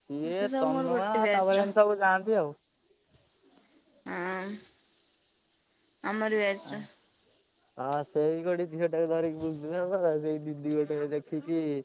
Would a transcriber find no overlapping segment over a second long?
No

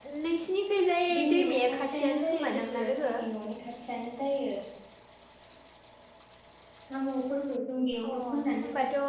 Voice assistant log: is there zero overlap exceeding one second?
No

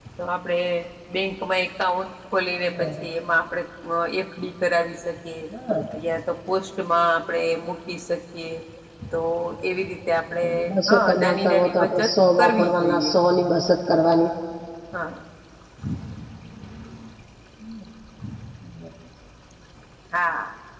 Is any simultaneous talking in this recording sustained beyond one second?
Yes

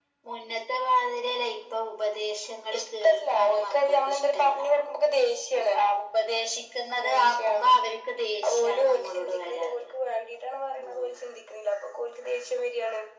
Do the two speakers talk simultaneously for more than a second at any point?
Yes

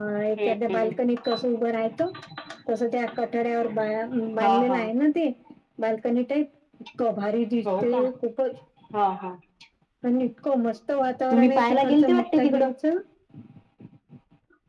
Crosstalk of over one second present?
Yes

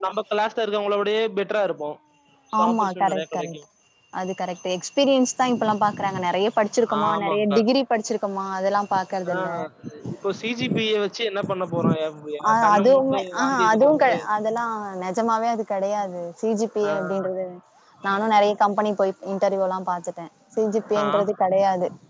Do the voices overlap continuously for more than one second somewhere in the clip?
Yes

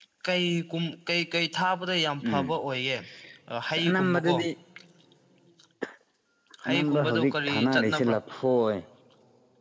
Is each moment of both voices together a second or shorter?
No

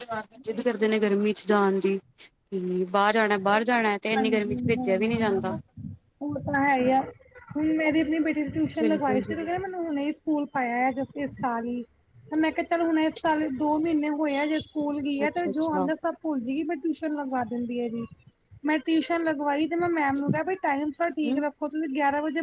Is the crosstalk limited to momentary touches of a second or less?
No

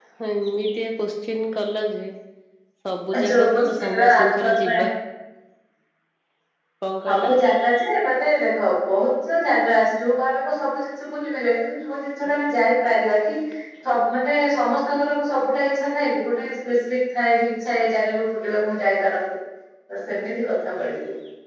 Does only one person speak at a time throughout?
No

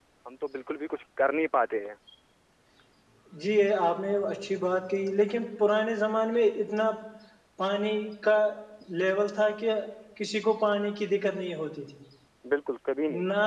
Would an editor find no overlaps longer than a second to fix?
Yes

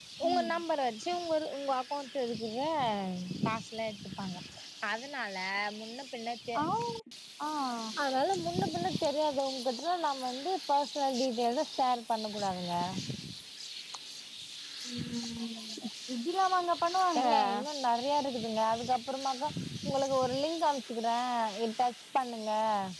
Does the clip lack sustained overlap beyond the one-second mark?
Yes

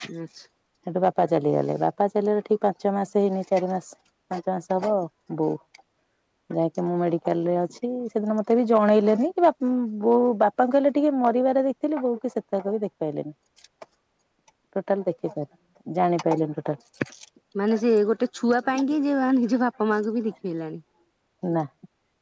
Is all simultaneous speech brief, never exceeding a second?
Yes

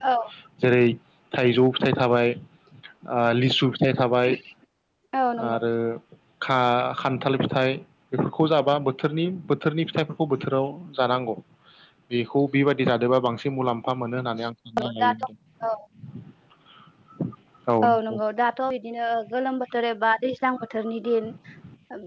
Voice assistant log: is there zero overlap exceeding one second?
Yes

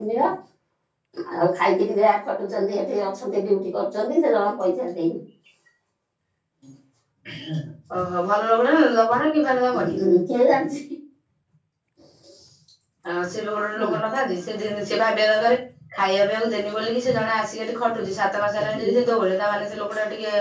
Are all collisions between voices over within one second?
Yes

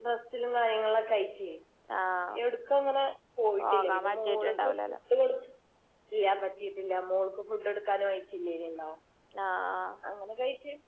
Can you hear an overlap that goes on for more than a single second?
Yes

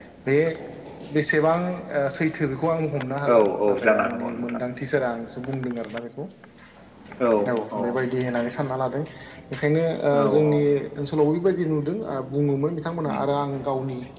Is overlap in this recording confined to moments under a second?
No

